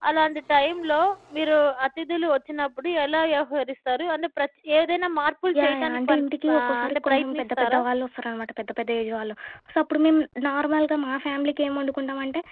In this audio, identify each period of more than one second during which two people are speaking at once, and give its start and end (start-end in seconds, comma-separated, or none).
5.6-7.8